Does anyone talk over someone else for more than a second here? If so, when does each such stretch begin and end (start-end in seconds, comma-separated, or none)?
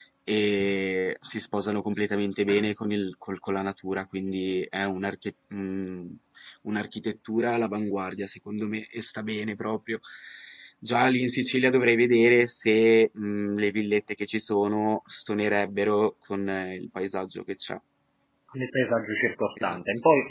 none